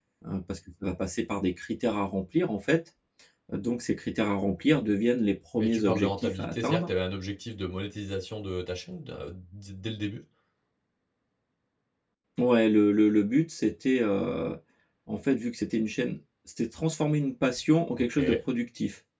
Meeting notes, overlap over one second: present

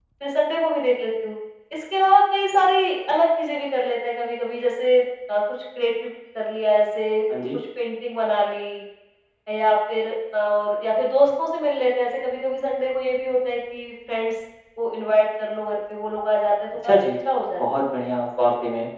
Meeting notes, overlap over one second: none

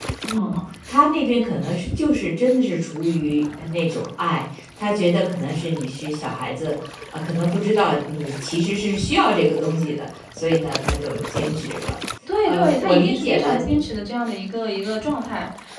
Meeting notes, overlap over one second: present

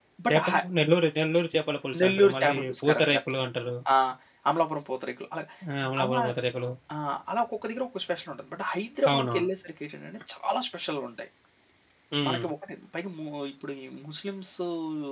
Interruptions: present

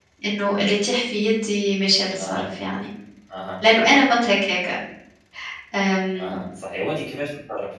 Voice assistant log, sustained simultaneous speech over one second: none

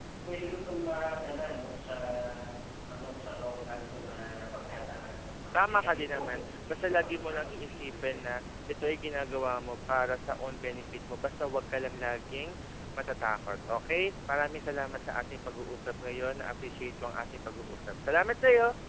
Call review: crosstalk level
present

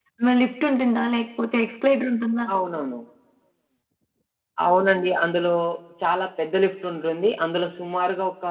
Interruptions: none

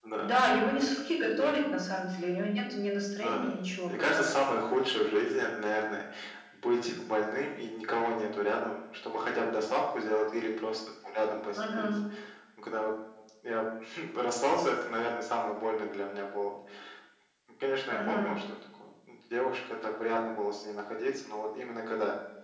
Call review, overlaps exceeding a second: none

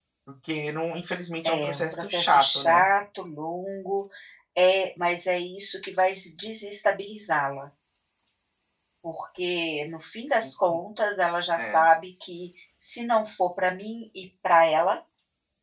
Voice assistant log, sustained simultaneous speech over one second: present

